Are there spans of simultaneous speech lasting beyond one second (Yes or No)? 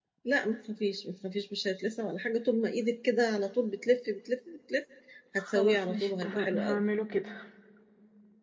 Yes